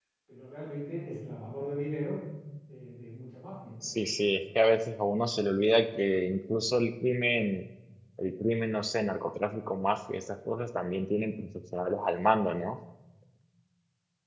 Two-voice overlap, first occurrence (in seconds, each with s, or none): none